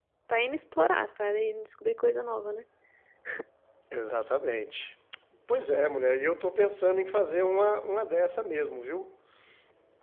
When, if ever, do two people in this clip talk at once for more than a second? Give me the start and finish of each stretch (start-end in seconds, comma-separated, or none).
none